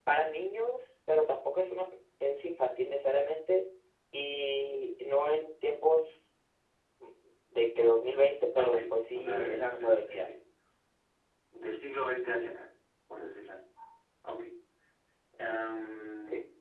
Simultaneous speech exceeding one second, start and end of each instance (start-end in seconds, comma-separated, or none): 8.6-10.3